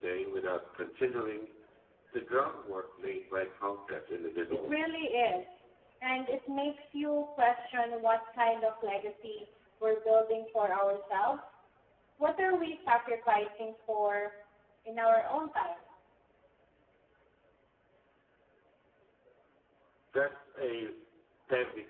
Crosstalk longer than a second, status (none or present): none